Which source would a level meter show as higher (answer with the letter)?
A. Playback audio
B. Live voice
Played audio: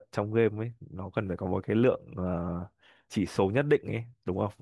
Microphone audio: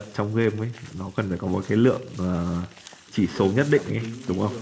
A